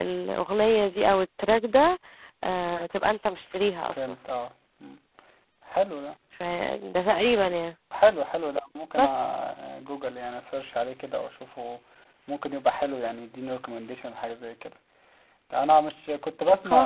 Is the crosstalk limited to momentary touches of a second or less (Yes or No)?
Yes